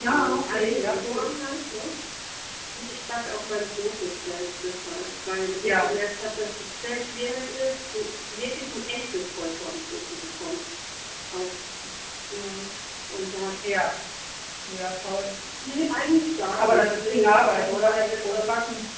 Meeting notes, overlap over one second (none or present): present